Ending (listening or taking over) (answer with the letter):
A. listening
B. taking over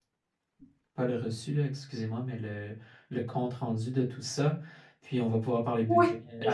B